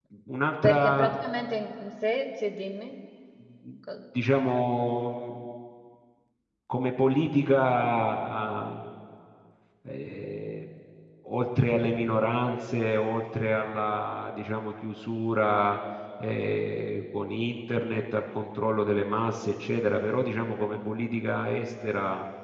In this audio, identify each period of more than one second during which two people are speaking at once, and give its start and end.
none

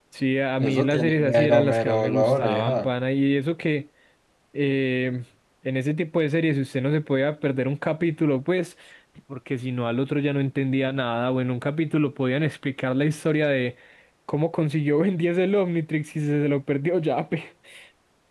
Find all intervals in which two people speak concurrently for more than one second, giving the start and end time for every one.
0.6-2.9

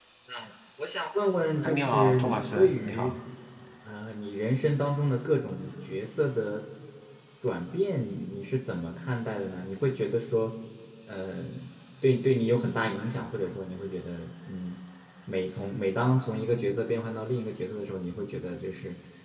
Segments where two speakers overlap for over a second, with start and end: 1.6-3.1

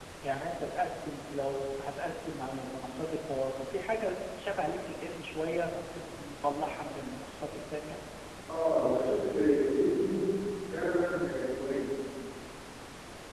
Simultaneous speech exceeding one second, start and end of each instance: none

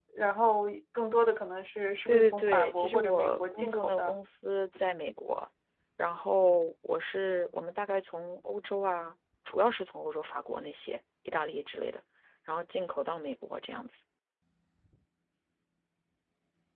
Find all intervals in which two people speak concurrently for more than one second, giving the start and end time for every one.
2.1-4.2

